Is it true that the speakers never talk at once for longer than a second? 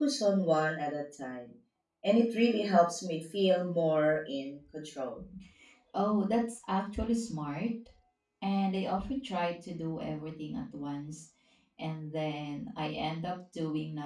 Yes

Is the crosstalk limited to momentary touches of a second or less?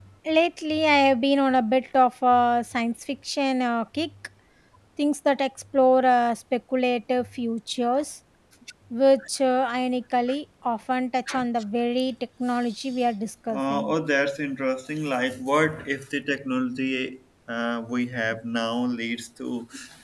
Yes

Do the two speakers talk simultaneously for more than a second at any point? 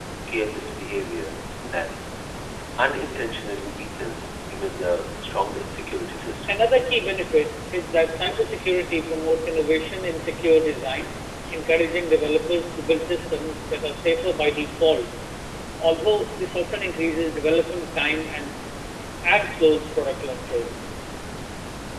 No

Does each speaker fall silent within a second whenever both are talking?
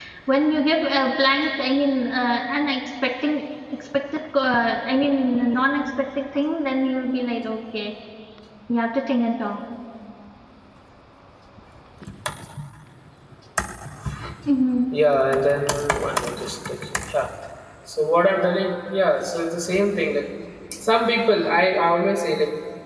Yes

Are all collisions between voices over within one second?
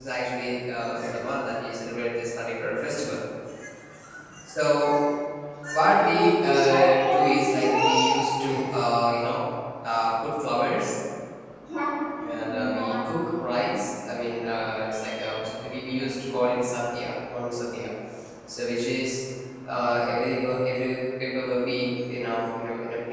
No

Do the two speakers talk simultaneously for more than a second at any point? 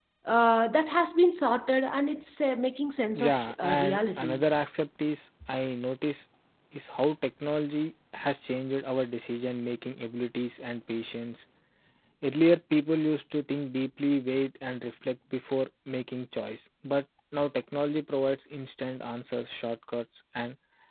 Yes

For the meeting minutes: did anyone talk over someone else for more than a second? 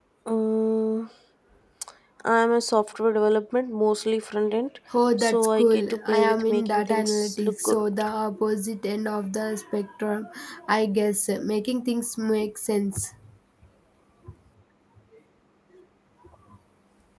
Yes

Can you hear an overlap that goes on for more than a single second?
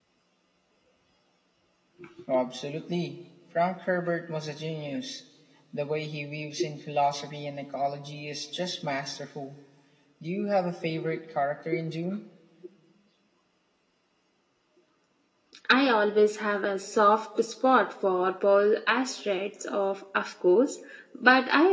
No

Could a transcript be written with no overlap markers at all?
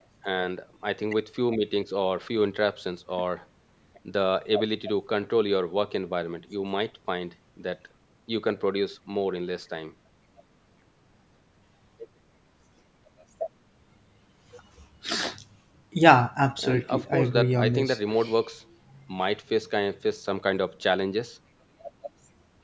No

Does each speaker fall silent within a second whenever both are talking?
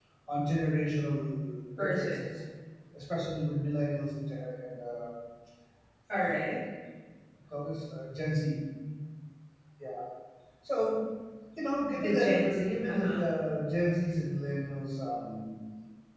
No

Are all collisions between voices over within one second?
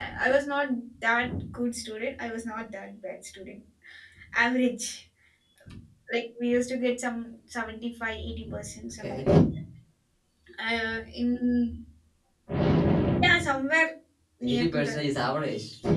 Yes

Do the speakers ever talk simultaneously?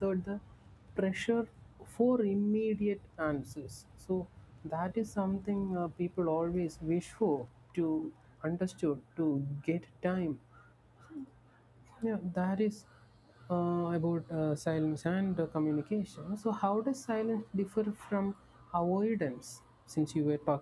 No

